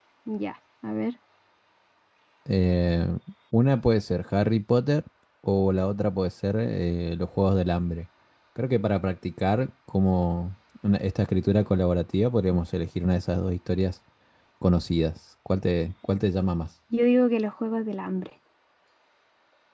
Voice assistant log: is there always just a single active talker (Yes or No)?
Yes